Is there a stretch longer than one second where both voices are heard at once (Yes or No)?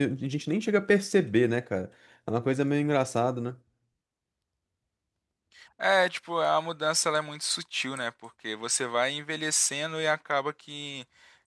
No